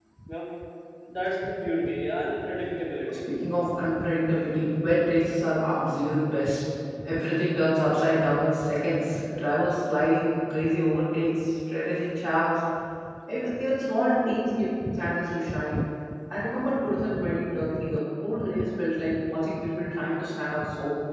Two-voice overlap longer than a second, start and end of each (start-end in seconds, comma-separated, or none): none